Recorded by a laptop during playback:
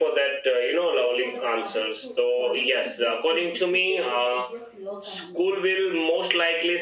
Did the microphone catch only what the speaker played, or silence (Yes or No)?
No